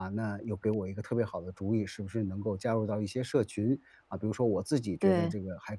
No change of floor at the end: Yes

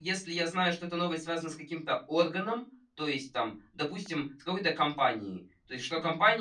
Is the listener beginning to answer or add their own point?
No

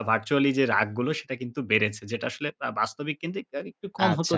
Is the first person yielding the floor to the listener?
Yes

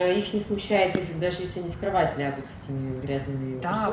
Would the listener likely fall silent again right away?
No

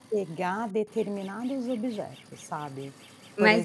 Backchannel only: No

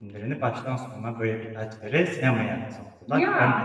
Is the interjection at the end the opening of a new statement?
No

